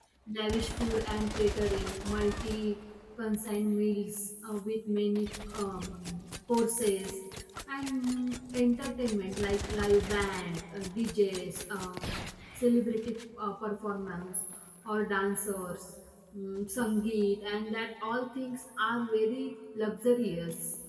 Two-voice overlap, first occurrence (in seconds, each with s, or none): none